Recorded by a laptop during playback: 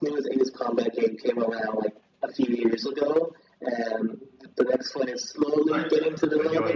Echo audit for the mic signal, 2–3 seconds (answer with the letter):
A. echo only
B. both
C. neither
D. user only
A